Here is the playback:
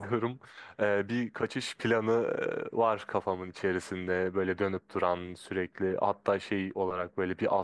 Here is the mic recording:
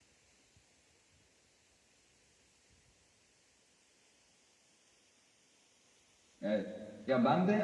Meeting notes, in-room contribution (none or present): present